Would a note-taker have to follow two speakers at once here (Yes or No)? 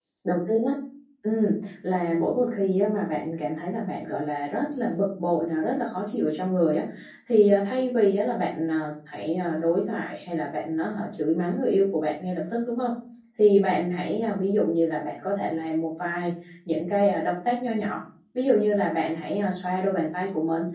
No